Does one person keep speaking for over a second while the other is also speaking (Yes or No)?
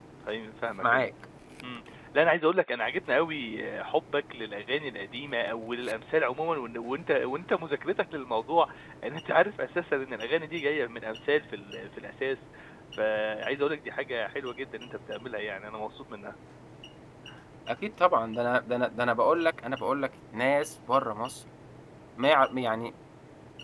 No